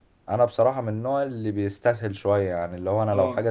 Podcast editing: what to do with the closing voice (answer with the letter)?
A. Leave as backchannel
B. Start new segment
A